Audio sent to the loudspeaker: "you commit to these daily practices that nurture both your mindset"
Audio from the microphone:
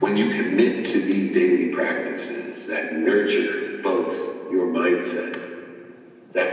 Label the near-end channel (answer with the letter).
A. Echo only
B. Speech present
A